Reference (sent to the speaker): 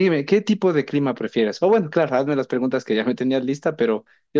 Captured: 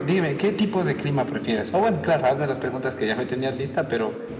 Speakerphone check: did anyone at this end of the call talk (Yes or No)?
No